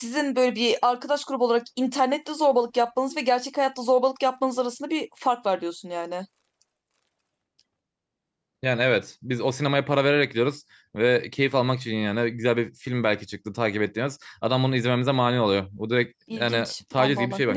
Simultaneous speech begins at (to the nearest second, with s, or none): 16 s